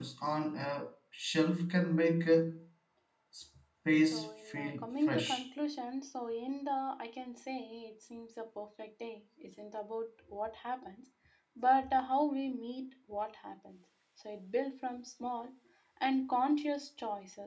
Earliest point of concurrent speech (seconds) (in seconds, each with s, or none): 4.1 s